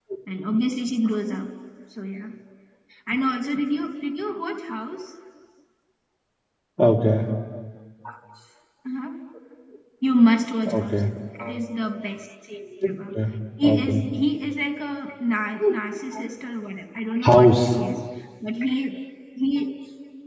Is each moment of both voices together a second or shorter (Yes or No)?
Yes